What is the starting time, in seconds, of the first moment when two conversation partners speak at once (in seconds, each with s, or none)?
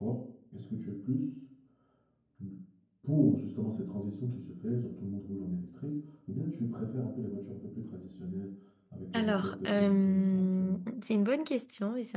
9.1 s